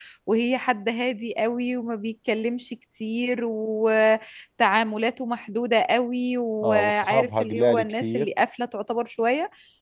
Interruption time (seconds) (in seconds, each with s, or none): 6.6 s